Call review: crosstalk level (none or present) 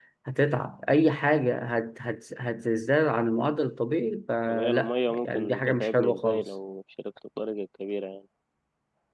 present